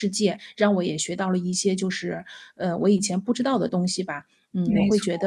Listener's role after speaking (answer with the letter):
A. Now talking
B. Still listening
B